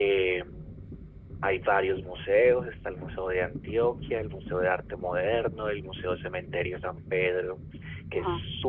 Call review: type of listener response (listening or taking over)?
listening